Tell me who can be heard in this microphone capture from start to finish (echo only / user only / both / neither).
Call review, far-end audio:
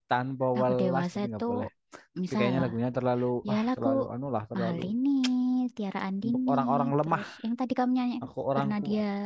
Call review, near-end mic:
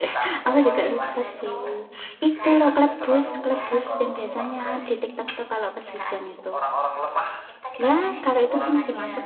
both